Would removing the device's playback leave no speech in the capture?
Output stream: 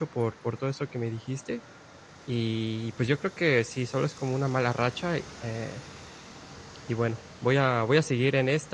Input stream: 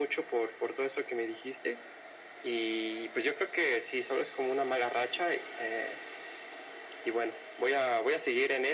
Yes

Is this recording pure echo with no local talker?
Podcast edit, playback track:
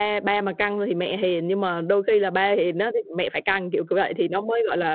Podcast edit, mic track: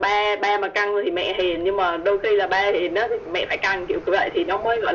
Yes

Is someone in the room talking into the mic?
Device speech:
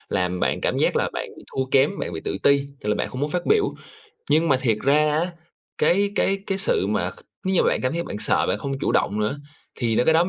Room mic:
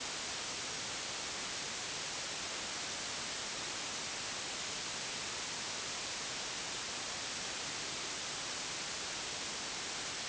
No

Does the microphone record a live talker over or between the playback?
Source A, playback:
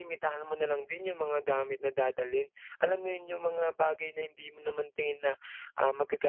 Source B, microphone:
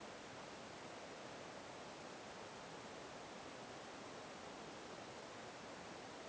No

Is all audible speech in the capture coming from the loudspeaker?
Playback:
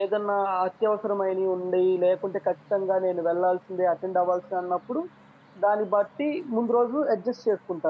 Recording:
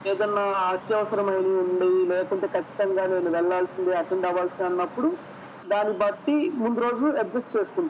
Yes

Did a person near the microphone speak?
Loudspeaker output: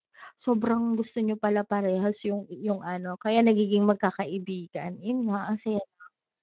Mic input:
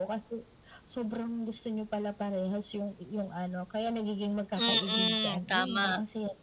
Yes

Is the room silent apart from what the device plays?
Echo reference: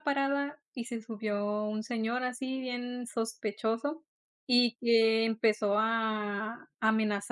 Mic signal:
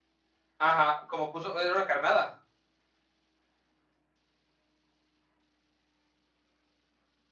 No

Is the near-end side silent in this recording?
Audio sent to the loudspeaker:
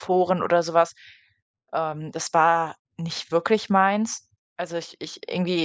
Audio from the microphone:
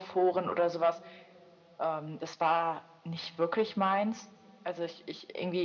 Yes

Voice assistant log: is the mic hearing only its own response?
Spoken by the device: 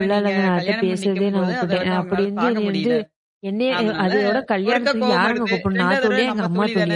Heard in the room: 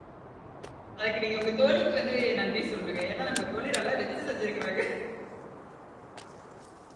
No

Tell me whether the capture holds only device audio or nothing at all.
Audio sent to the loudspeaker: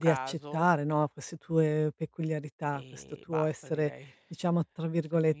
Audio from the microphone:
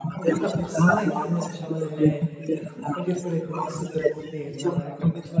No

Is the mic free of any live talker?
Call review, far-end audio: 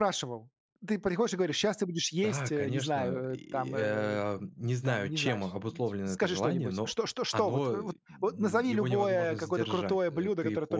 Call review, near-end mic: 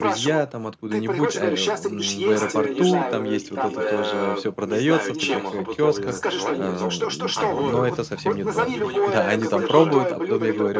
No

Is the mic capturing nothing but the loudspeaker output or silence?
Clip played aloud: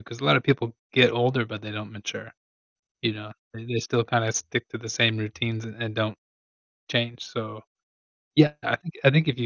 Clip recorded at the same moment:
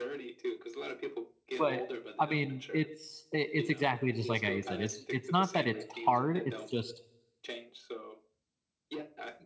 No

